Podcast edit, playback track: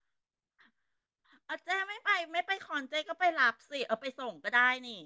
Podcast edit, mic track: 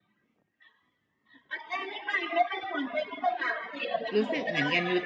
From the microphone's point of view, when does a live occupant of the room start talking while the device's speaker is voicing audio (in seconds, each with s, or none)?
4.1 s